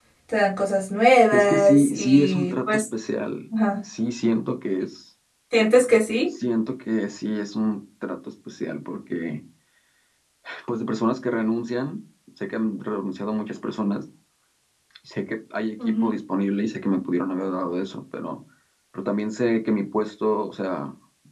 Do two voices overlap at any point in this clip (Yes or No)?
Yes